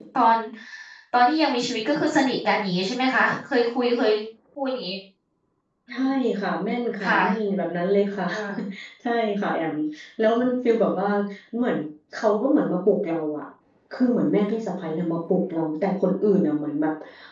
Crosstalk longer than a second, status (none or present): none